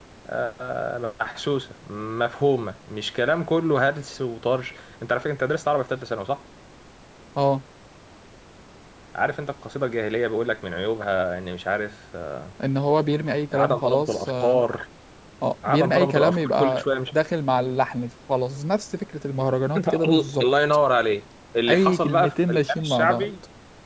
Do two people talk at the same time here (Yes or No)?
Yes